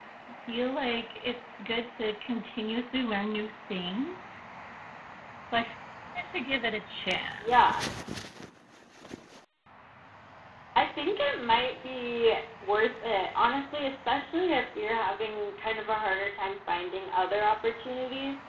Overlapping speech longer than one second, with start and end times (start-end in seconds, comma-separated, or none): none